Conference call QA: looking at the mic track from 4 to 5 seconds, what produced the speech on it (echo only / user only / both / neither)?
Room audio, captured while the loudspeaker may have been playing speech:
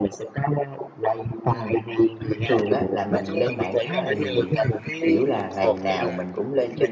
both